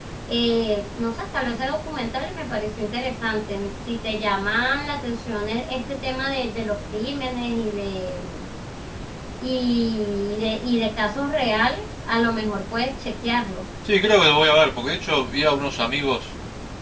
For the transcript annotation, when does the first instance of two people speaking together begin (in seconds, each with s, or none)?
none